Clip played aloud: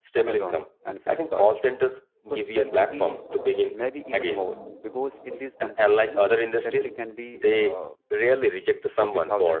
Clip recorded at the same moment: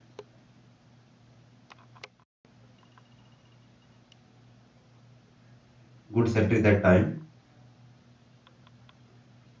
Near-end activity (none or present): present